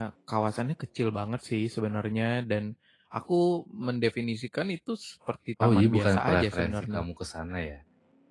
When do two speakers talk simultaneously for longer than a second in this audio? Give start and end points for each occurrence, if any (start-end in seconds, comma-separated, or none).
5.6-7.0